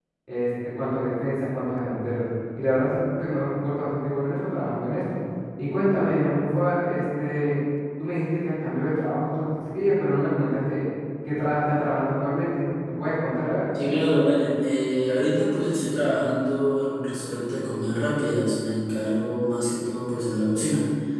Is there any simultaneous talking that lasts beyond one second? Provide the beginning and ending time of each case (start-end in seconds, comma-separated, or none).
none